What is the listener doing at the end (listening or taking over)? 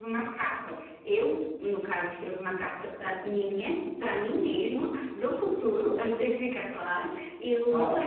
listening